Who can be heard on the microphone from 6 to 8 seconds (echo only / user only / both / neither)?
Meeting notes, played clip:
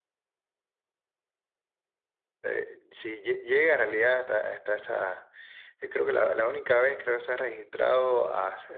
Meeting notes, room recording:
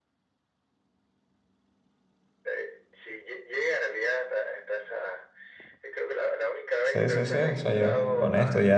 both